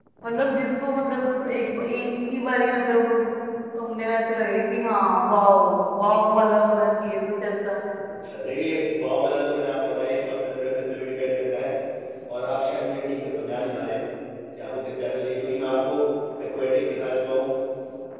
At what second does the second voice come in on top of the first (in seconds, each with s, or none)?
none